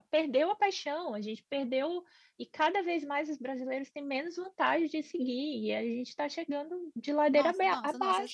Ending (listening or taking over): taking over